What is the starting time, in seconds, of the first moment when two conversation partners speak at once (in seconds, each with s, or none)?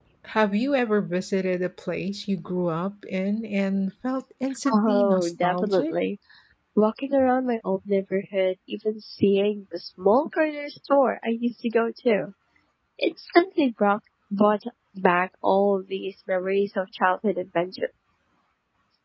4.7 s